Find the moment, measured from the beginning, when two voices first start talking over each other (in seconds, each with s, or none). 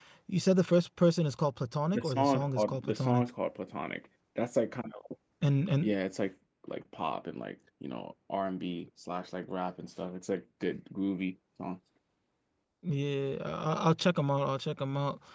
1.9 s